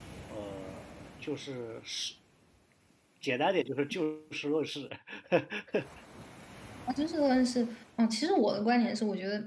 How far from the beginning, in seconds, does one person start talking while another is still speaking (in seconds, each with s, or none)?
none